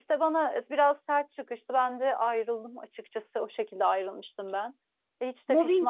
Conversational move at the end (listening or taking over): taking over